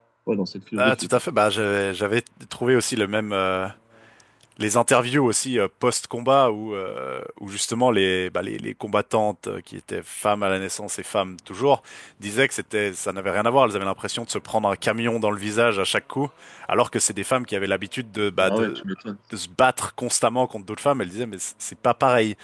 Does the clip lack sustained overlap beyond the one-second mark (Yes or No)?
Yes